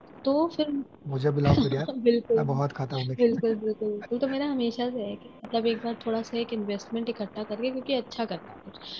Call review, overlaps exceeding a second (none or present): none